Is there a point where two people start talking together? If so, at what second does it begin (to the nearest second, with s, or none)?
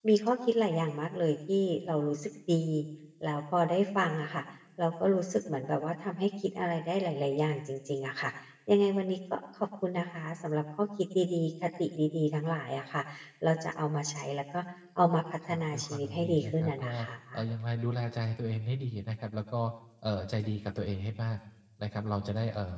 15 s